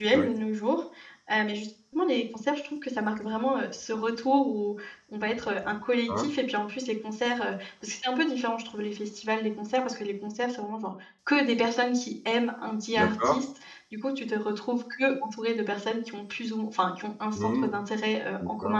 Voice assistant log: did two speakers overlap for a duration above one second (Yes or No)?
No